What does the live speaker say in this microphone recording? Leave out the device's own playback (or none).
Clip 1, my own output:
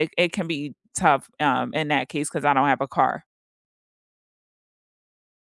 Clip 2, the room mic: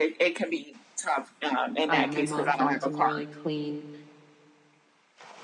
um, my mom found some really clean,